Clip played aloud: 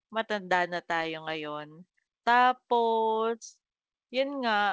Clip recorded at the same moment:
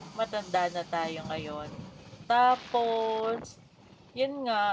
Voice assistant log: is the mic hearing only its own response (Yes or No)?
Yes